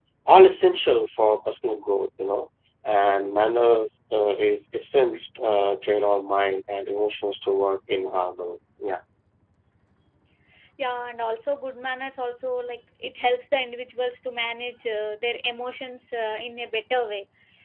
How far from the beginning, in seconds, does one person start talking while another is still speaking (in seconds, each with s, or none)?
none